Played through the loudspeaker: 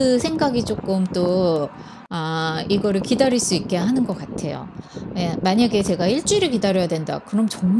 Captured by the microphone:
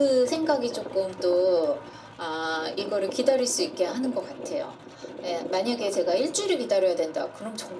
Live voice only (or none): none